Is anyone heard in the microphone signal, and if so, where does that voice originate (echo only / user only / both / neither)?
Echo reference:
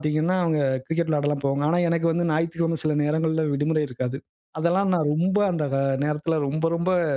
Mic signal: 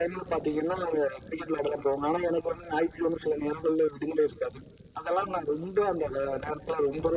echo only